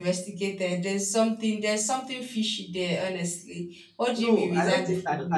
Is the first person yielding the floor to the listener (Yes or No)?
Yes